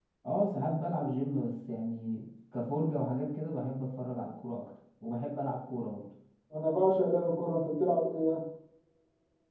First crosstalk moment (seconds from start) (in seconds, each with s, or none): none